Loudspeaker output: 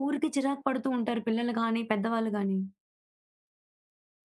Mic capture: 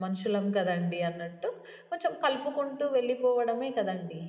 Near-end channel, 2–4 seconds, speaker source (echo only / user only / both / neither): user only